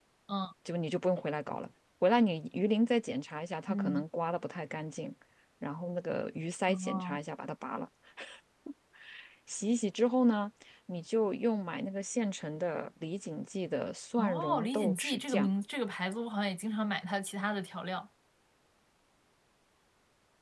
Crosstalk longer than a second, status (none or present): present